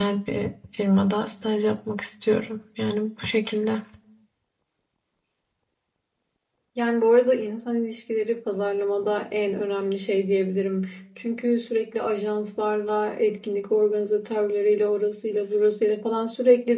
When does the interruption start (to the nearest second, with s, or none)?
none